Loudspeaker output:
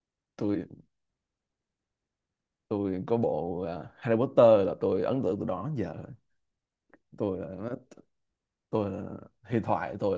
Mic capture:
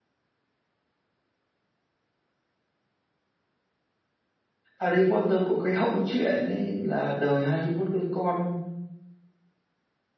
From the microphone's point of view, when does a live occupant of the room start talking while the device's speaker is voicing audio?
5 s

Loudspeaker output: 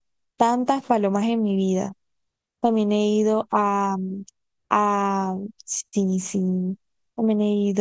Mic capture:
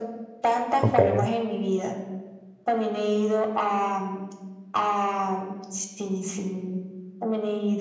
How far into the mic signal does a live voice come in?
1 s

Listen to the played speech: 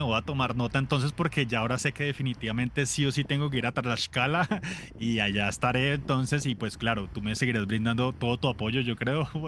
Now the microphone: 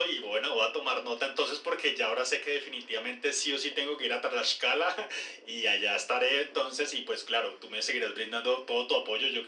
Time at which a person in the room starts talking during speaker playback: none

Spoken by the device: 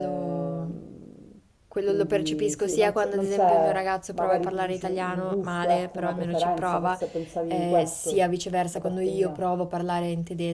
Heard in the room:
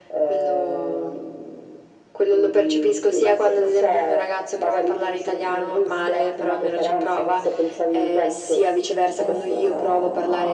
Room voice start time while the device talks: 9 s

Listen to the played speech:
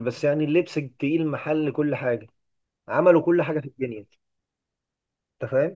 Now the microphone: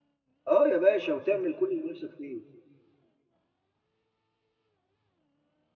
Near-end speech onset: 0 s

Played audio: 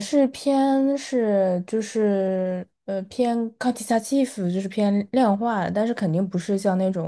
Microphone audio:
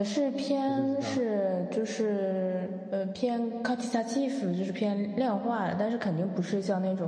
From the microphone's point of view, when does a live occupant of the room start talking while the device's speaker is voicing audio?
1 s

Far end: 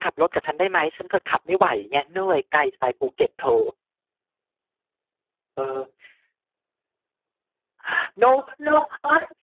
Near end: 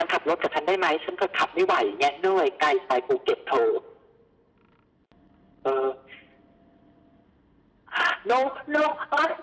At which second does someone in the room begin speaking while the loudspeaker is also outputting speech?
none

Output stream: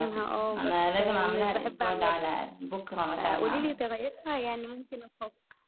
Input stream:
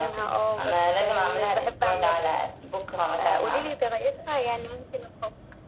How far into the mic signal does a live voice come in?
none

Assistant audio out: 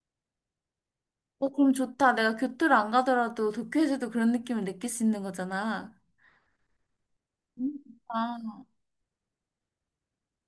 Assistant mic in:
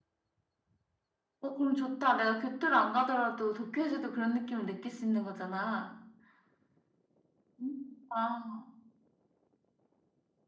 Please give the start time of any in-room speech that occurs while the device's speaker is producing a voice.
none

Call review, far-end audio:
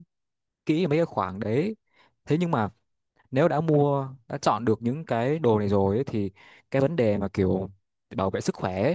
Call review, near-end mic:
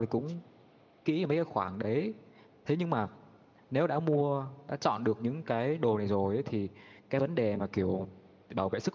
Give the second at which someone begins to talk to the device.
none

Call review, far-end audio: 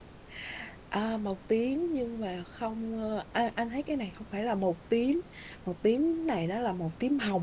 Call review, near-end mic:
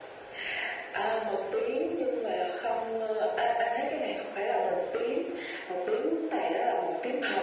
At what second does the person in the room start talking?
none

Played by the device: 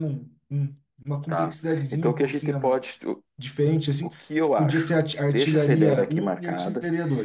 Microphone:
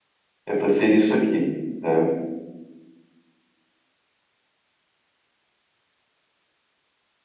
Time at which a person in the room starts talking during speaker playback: 0 s

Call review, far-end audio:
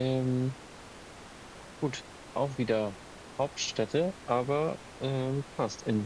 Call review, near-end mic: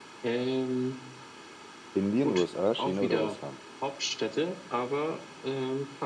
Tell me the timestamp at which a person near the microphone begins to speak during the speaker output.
2 s

